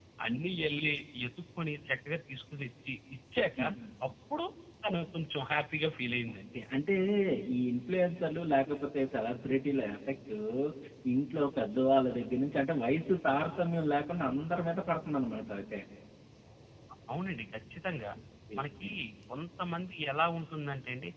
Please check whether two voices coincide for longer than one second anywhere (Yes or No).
No